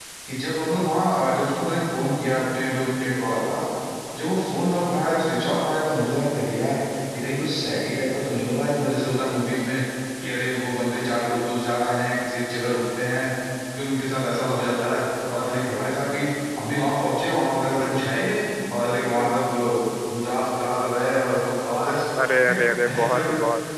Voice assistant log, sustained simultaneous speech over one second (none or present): none